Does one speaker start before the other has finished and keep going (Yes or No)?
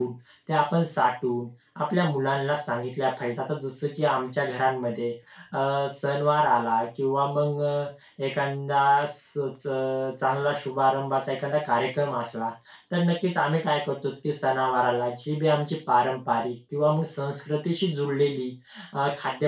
No